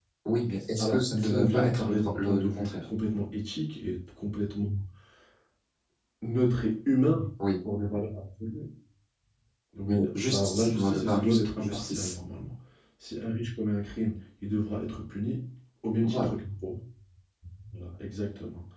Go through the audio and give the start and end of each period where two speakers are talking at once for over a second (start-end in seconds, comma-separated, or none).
0.8-2.8, 9.9-12.1